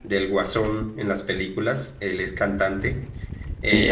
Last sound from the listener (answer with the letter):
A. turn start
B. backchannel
B